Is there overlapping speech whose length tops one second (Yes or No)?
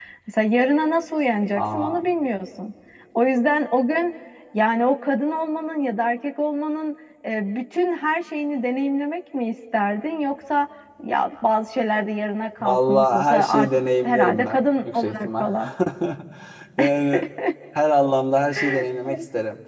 Yes